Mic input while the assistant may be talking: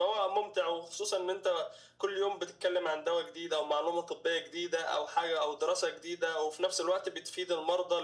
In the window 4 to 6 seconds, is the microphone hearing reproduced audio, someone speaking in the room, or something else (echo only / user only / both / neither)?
echo only